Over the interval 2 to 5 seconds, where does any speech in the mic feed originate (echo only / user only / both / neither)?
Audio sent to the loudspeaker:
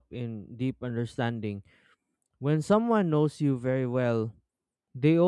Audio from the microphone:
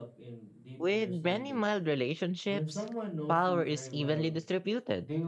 both